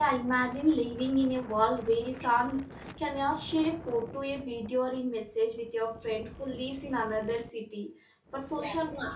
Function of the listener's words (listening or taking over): listening